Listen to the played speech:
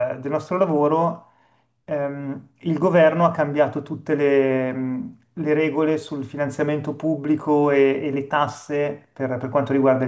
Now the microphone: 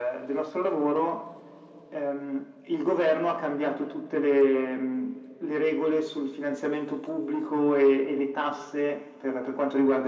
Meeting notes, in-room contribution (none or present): none